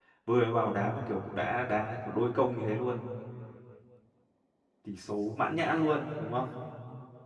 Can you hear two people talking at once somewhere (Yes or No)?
No